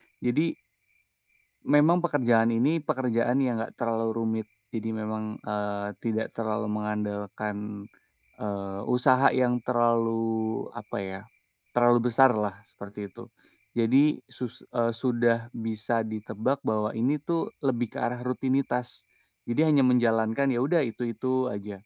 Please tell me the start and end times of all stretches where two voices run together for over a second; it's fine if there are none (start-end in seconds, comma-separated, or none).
none